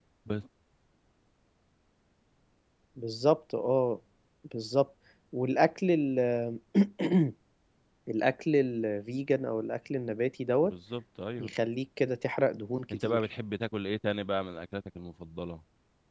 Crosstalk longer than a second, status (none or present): none